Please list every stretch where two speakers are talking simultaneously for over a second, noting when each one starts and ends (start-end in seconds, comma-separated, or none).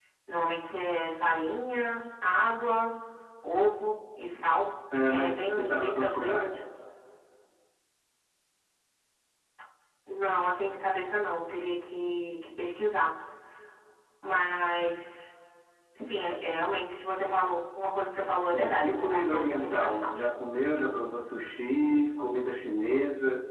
5.1-6.4, 18.5-20.2